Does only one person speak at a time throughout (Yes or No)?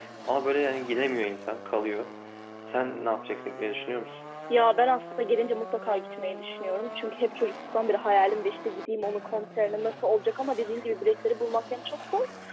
Yes